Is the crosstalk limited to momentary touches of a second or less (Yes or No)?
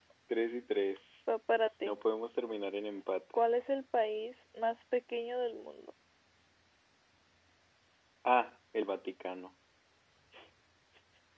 Yes